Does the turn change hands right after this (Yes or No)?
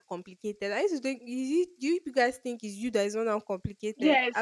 Yes